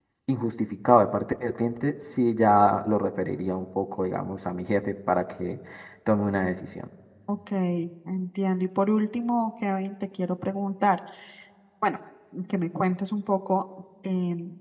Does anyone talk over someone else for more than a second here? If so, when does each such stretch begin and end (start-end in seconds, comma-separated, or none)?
none